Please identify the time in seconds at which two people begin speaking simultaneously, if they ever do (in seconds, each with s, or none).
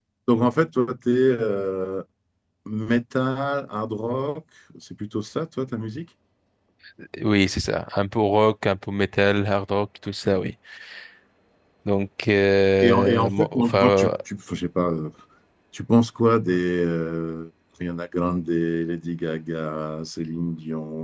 12.8 s